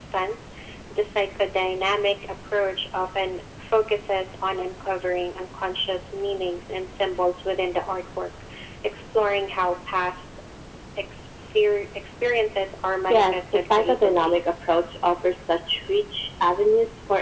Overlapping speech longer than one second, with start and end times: 13.1-14.4

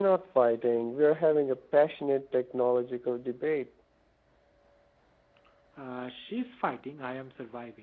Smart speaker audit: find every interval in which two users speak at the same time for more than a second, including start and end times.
none

